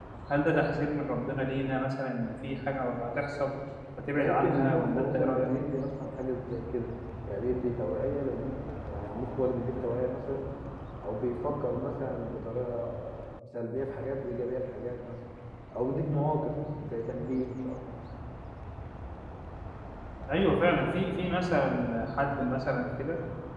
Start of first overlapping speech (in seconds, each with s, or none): 4.1 s